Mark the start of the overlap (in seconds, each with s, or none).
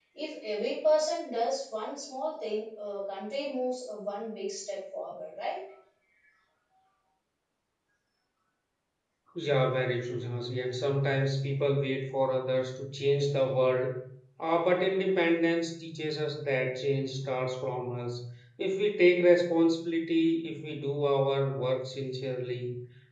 none